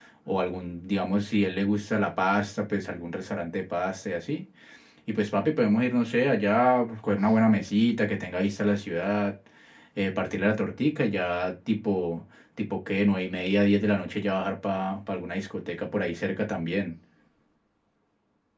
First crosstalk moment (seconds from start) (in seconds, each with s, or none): none